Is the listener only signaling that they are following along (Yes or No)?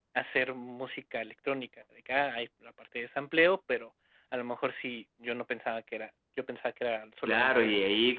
No